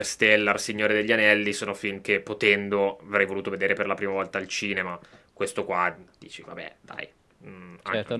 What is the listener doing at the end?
taking over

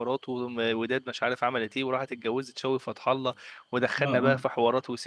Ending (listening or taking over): listening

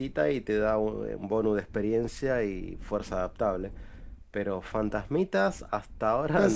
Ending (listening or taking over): taking over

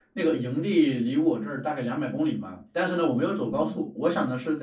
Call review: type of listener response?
listening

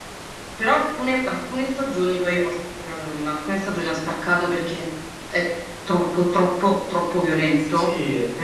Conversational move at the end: taking over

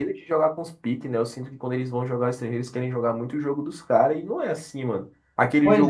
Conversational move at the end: listening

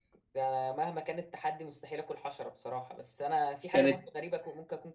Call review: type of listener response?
listening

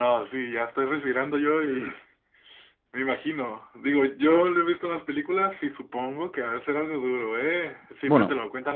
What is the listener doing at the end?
listening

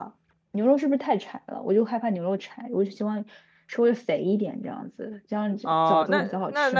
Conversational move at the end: taking over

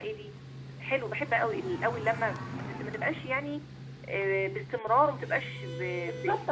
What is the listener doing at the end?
taking over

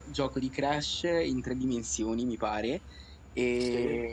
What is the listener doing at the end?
listening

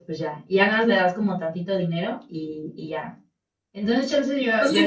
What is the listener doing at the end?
taking over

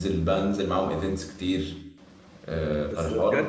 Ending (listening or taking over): taking over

